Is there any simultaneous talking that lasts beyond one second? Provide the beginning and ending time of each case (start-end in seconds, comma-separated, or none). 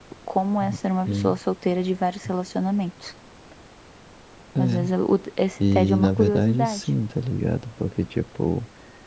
5.6-6.9